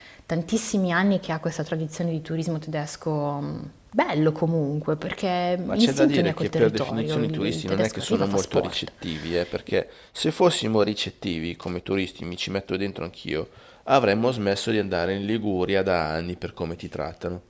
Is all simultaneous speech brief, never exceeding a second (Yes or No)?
No